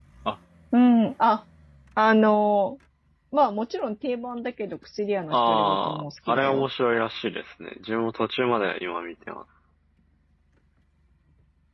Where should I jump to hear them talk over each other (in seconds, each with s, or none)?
5.3 s